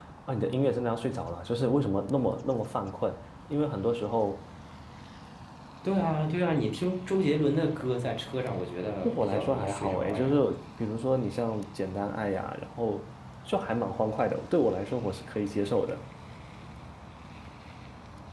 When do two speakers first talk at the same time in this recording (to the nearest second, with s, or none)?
9 s